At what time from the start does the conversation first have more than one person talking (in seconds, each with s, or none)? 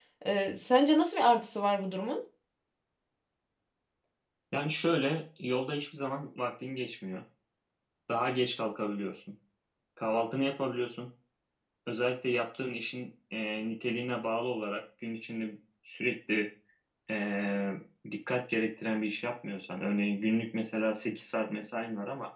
none